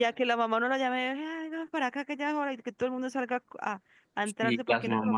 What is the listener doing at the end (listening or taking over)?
taking over